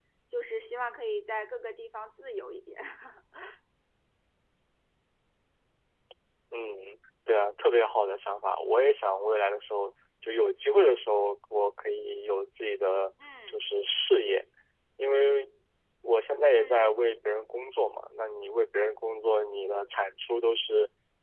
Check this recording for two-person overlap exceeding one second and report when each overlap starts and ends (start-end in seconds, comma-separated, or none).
none